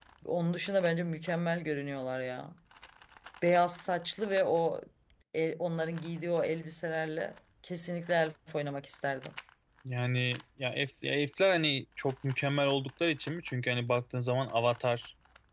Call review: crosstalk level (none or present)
none